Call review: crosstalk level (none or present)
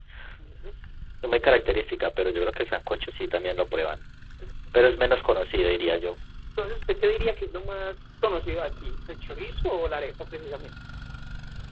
none